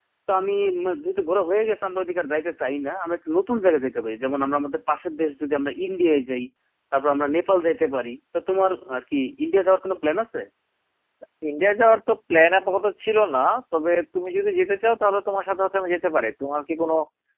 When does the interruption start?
none

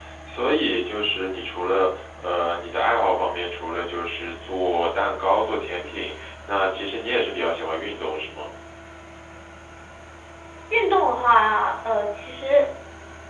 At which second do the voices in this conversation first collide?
none

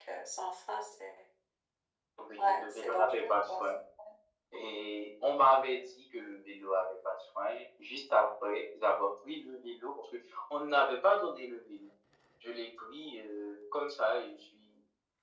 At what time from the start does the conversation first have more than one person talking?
2 s

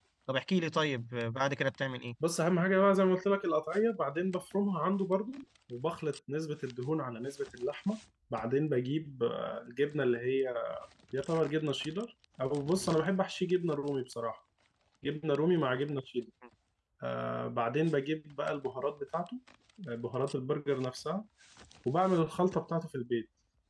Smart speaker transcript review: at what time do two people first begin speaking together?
none

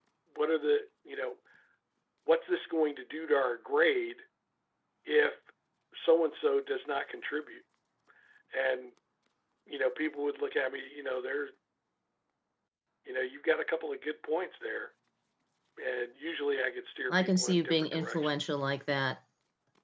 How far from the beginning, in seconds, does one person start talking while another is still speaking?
17 s

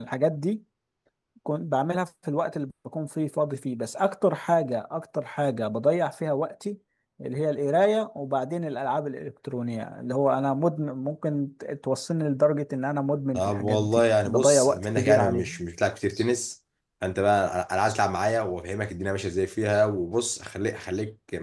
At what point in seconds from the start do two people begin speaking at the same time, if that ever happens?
13 s

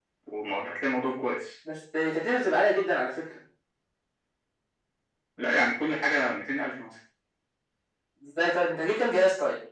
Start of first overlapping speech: none

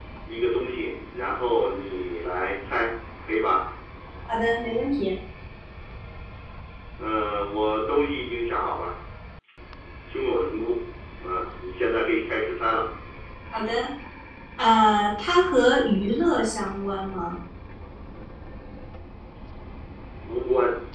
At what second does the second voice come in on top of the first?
none

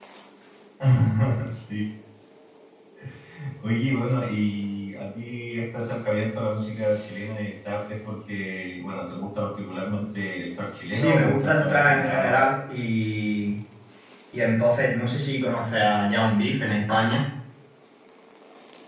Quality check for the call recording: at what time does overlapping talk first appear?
11 s

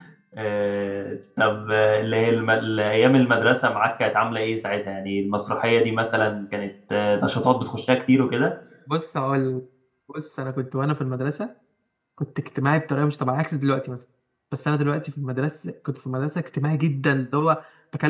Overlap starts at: none

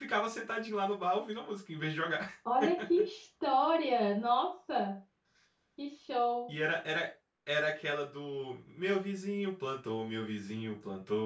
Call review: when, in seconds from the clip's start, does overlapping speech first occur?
none

